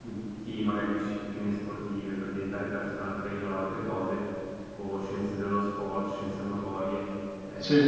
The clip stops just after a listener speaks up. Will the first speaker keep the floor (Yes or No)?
Yes